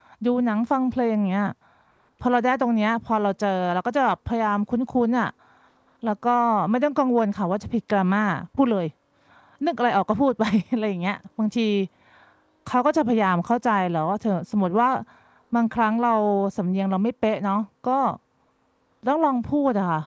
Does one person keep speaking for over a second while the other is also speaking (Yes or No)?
No